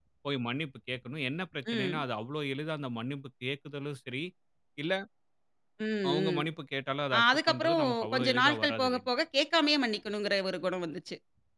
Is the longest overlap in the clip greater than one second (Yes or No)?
Yes